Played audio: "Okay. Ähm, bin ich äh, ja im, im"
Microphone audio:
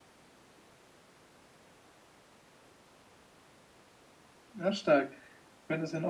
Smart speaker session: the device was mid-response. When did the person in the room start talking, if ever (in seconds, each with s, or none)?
4.5 s